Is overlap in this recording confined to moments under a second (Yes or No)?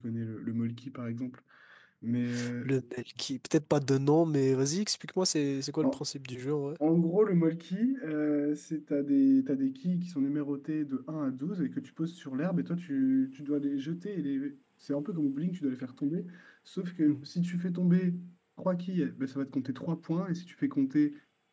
Yes